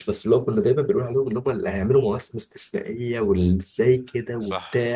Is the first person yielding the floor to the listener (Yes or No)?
Yes